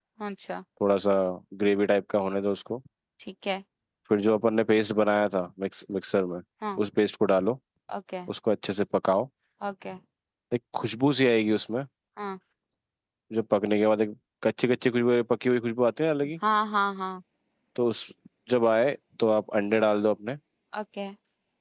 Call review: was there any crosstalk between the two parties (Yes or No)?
No